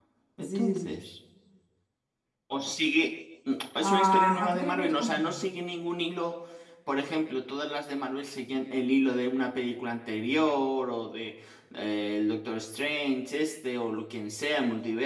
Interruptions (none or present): present